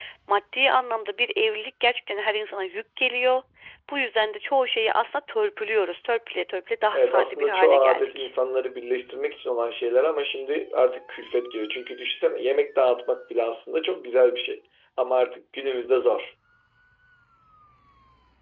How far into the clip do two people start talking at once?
6.9 s

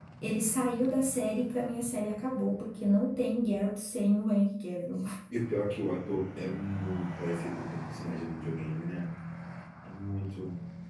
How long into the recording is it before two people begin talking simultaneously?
none

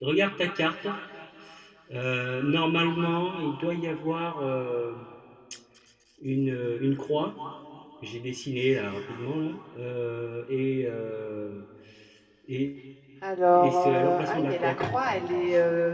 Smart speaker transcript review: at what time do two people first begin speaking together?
13.5 s

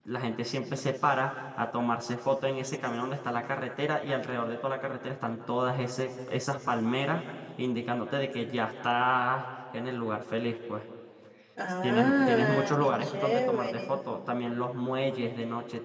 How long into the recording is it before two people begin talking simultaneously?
11.8 s

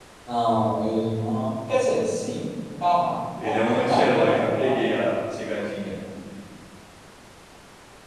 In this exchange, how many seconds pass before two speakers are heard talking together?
3.4 s

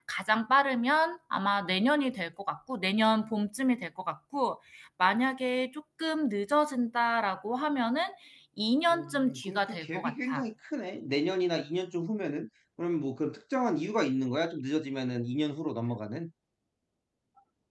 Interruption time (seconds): 8.9 s

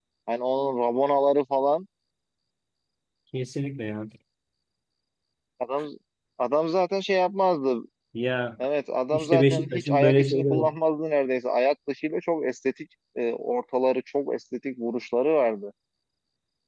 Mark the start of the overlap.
9.1 s

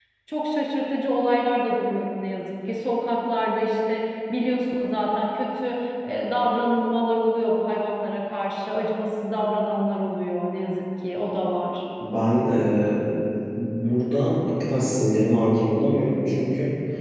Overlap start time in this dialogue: none

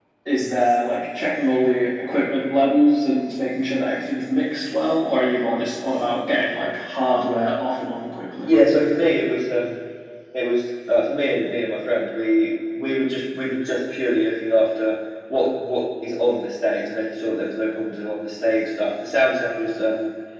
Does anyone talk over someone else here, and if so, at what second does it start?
none

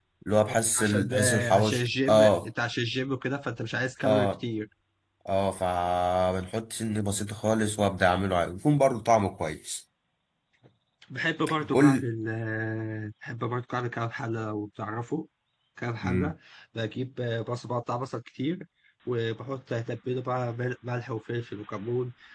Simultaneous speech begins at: 0.8 s

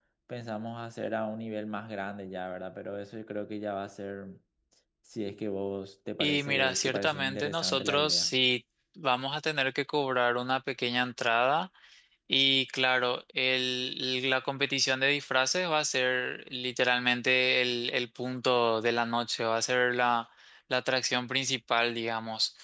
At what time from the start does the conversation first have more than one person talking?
6.2 s

